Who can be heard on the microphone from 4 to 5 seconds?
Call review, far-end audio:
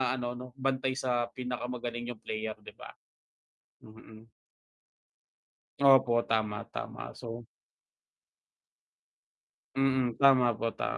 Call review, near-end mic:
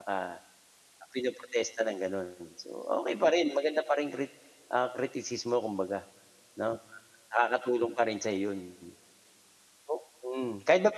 user only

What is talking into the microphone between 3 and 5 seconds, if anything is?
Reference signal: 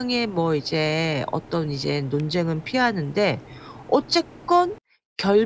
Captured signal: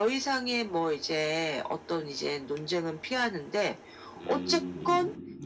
both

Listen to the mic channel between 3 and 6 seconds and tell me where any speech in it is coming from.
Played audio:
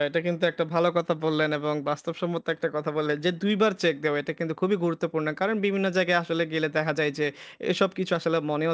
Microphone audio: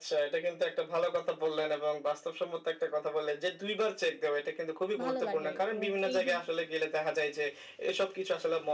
both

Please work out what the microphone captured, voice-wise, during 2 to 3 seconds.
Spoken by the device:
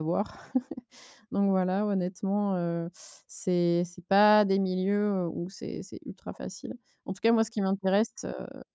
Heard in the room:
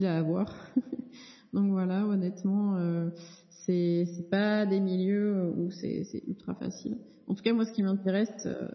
echo only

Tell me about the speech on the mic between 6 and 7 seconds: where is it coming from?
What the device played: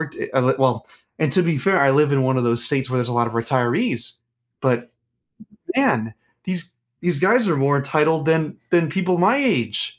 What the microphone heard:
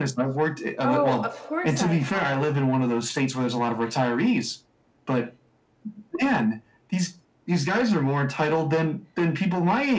echo only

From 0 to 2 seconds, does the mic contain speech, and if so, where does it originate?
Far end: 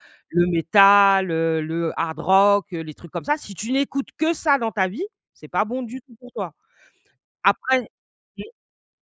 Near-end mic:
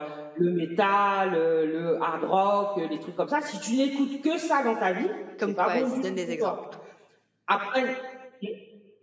echo only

